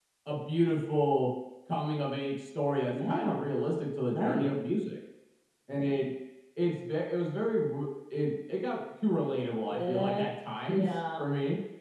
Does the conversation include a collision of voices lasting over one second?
No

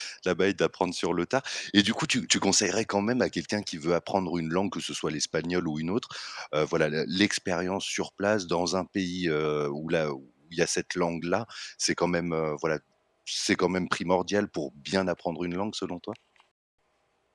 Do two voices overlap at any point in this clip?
No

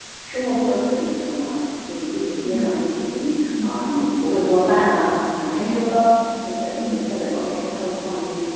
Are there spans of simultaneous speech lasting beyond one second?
No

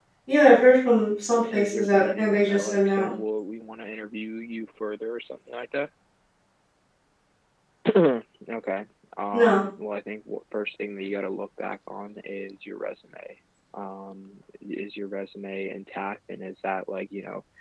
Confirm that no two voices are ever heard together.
No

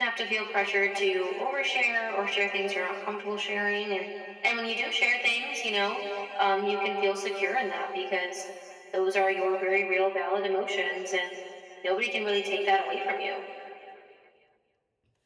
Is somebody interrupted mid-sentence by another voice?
No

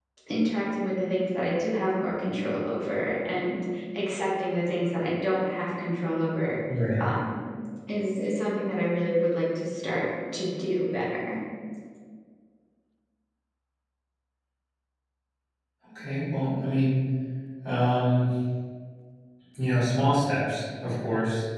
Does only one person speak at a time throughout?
Yes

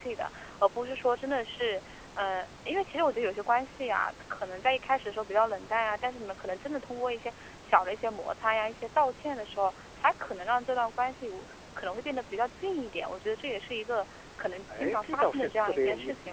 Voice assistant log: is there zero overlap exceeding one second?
No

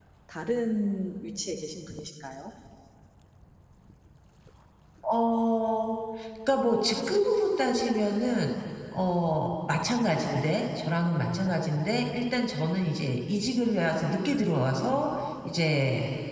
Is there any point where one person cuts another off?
No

